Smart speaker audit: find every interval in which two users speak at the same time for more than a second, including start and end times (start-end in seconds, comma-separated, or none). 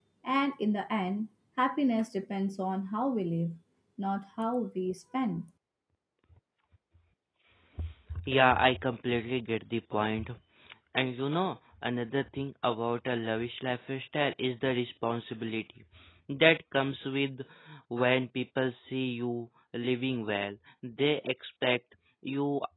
none